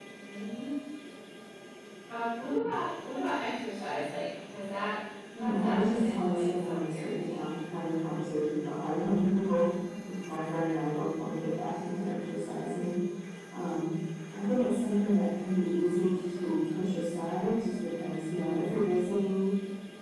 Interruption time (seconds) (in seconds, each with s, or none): 5.3 s